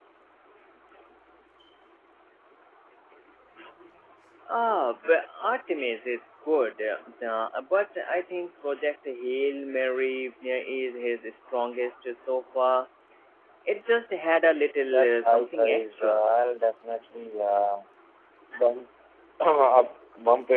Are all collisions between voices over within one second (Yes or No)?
No